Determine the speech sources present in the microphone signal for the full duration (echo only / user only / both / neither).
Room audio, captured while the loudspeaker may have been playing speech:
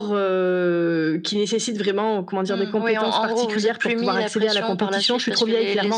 echo only